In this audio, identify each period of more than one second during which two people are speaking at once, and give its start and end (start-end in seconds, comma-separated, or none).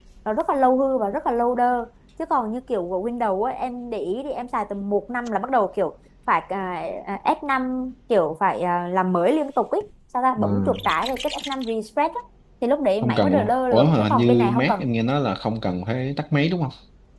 13.0-14.8